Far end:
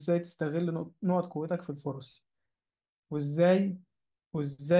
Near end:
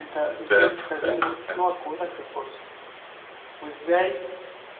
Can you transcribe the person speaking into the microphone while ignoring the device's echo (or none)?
فهمت فهمت فهمت